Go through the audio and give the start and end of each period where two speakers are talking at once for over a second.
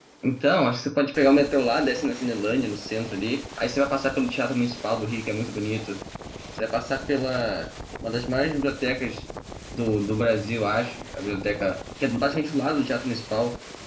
none

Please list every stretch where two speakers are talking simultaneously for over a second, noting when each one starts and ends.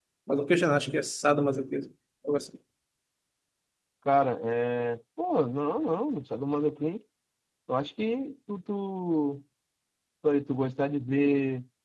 none

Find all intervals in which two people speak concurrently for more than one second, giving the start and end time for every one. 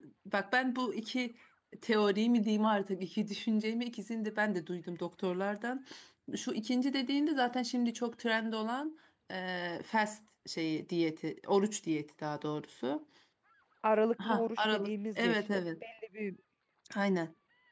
14.2-15.6

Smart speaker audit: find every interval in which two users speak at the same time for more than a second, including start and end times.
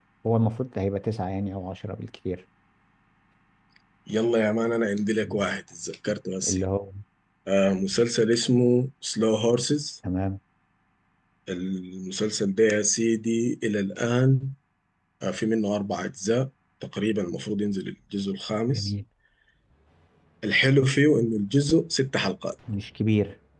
none

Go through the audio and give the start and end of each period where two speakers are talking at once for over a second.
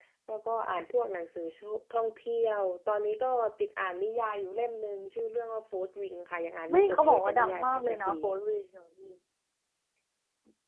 6.7-8.1

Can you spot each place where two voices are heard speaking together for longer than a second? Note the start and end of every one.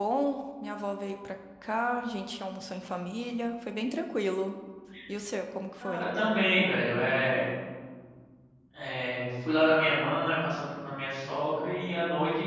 none

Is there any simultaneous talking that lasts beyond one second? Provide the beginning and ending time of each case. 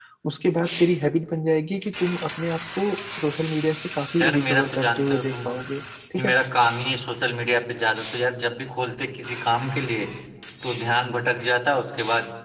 4.2-5.5

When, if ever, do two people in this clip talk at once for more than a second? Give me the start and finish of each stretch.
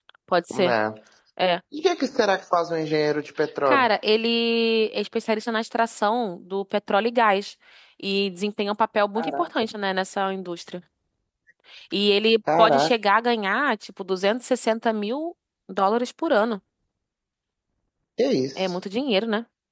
none

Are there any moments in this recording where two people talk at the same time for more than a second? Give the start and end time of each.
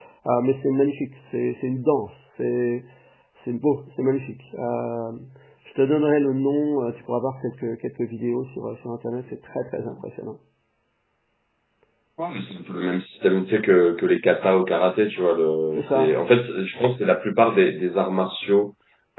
none

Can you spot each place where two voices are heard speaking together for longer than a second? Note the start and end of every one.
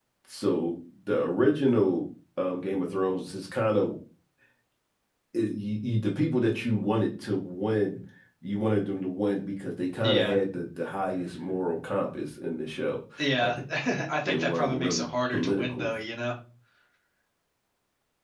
14.2-15.9

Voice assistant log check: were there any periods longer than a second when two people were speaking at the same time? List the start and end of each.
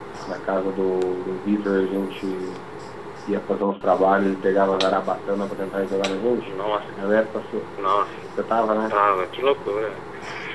none

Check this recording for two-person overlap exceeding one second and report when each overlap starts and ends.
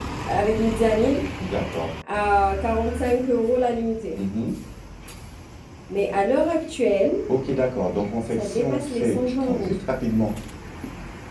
8.4-9.7

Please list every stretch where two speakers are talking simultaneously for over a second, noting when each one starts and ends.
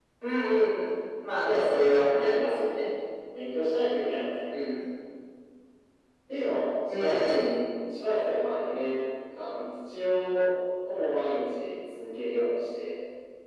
1.4-2.7

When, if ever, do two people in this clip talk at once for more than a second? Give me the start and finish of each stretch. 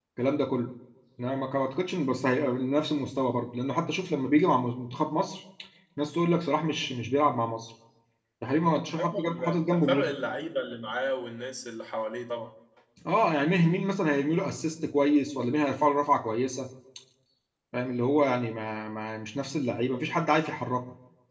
8.9-10.1

